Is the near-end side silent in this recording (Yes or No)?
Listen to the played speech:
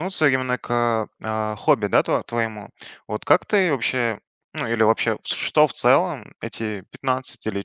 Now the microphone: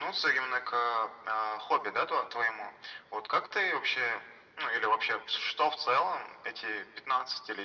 Yes